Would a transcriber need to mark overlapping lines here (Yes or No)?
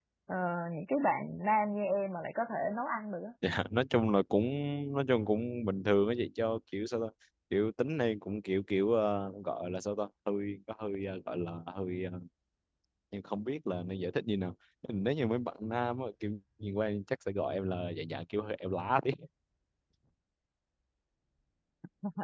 No